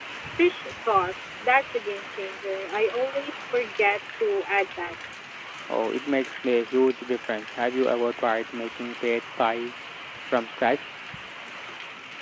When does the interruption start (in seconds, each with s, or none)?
none